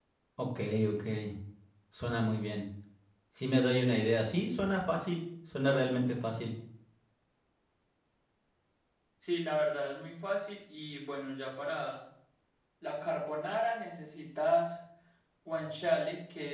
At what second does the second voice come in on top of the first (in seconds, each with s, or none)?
none